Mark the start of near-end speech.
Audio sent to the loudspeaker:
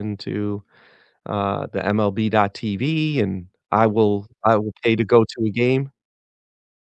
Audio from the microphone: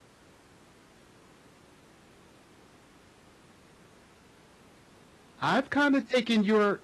5.4 s

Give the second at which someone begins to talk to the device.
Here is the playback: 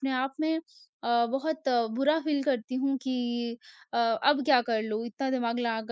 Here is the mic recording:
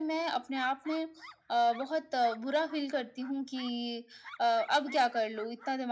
none

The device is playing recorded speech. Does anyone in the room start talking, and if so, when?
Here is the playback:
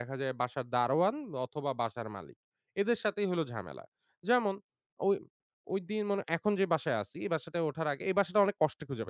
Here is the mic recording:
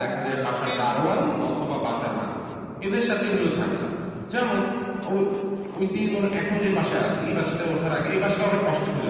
0.6 s

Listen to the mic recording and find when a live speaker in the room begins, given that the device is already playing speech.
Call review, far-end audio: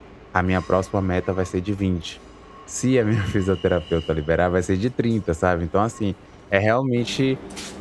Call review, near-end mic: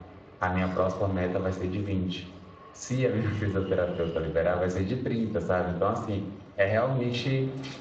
none

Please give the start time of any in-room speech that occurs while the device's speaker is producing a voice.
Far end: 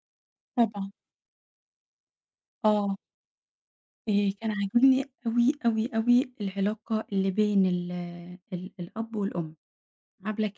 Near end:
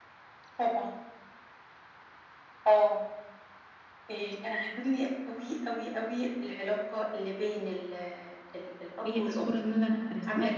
9.0 s

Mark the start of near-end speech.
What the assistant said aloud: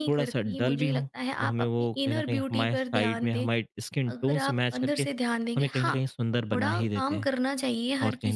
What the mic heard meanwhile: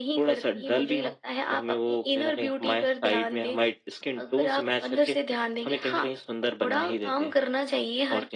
none

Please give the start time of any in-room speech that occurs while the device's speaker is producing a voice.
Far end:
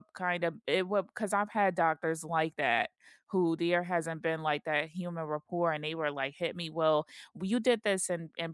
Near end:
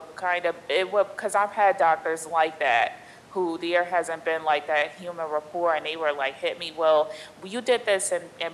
none

